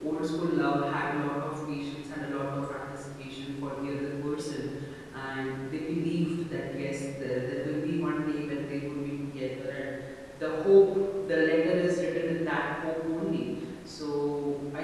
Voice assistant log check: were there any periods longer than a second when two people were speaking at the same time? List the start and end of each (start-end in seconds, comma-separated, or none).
none